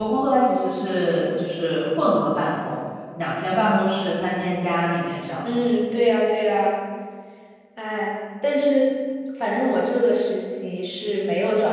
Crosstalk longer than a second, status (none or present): none